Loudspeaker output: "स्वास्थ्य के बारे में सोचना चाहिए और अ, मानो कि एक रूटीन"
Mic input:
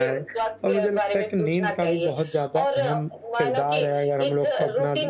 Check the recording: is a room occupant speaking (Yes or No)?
Yes